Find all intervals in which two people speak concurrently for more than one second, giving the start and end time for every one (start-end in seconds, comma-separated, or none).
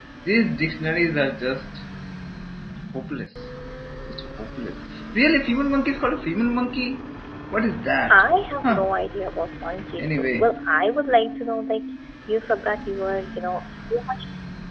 none